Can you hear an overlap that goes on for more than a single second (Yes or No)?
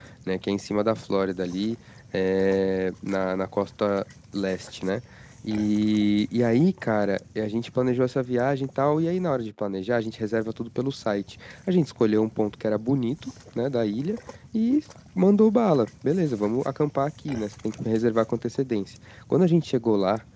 No